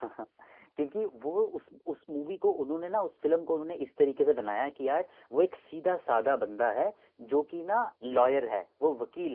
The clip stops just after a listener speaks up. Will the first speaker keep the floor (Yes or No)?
Yes